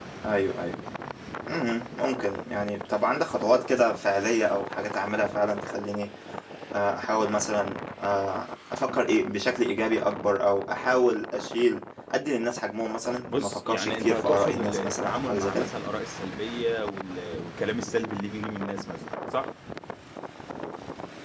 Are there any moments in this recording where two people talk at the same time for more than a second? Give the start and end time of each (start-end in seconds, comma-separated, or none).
13.3-15.7